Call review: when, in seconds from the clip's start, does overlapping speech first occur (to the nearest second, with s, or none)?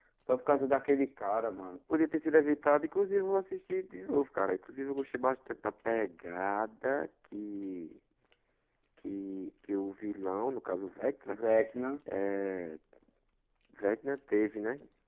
none